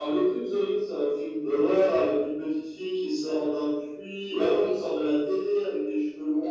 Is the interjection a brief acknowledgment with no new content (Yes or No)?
No